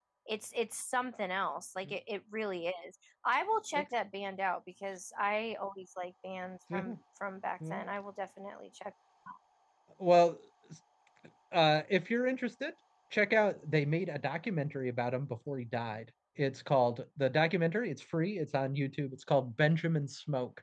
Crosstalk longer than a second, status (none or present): none